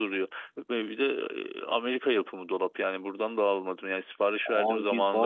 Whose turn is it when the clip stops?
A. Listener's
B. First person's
A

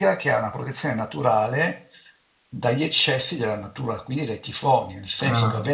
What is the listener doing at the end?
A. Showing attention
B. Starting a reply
A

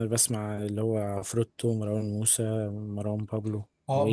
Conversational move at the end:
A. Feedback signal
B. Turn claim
B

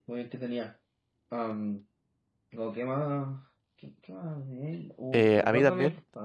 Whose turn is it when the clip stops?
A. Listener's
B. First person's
A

